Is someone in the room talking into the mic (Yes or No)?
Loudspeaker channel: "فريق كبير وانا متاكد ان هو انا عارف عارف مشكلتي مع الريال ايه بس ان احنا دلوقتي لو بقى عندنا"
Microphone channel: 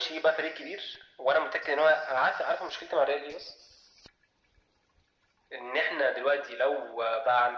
No